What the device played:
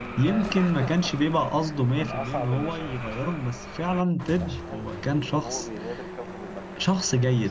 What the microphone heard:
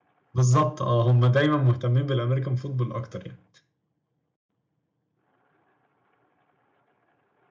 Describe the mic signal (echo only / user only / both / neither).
user only